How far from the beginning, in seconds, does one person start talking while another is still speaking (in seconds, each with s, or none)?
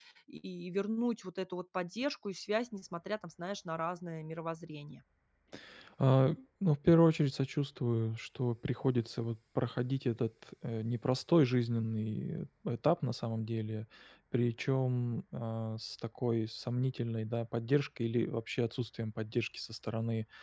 none